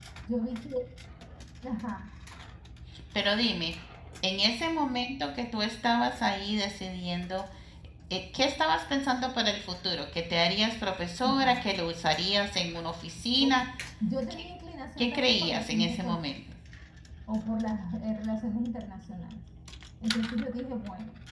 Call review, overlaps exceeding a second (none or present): present